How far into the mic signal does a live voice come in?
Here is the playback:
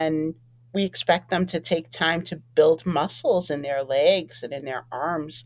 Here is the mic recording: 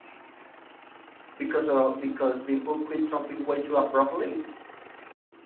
1.4 s

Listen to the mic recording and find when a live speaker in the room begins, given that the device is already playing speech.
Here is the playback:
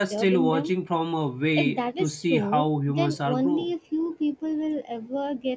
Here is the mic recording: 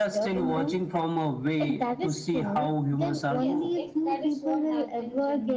3.4 s

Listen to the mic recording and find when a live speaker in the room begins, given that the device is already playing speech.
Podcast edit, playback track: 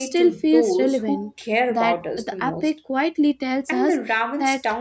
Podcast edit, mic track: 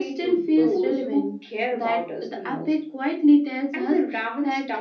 none

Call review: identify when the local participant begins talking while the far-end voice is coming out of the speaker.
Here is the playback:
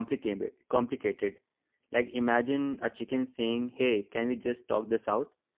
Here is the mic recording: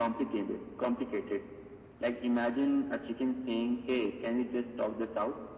none

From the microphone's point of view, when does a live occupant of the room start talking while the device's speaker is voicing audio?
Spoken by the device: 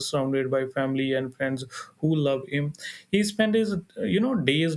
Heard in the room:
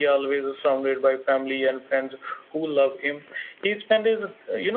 none

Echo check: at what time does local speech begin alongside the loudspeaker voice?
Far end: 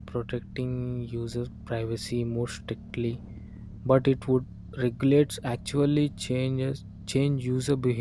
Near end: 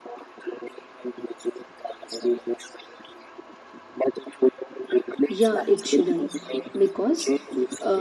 5.3 s

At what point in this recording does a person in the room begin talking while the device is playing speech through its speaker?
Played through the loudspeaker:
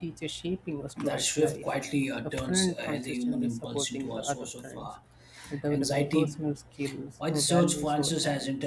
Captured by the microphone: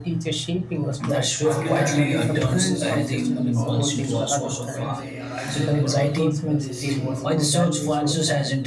1.4 s

